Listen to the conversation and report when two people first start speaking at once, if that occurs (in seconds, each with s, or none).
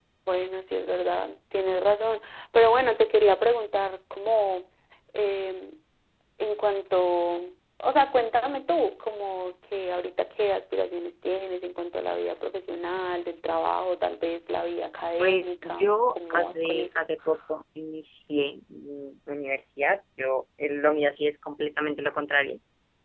15.2 s